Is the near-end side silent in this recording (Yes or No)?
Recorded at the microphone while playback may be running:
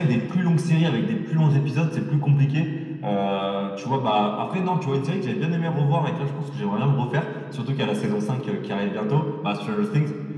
Yes